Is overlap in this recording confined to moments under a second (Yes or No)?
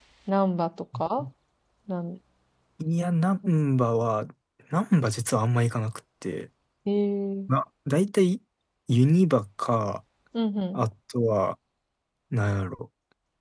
Yes